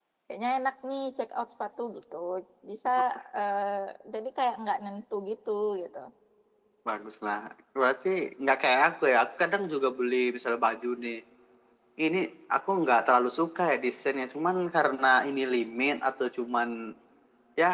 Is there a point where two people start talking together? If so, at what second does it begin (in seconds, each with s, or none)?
none